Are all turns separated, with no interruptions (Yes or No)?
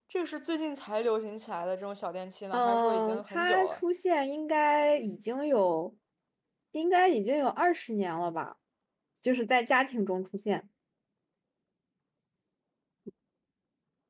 No